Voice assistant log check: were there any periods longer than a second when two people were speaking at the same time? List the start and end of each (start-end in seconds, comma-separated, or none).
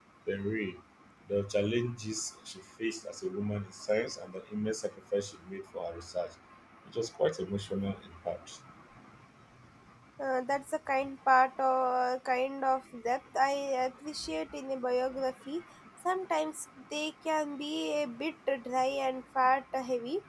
none